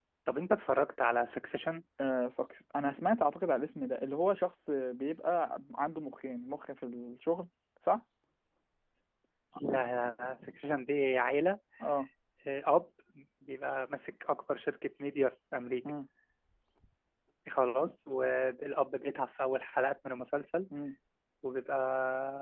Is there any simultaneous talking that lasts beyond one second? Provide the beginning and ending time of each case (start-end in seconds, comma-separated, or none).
none